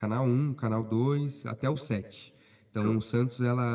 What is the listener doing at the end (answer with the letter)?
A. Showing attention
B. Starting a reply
A